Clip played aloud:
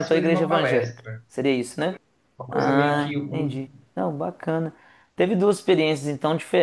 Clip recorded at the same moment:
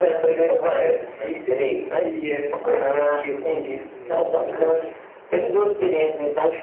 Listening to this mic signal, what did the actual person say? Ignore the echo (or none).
entre, entre essa experiência do catolicismo e, e hoje,